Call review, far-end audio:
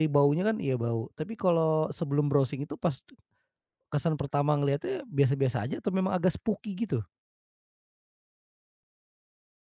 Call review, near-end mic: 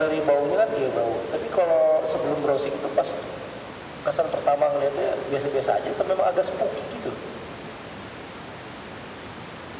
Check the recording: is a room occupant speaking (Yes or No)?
No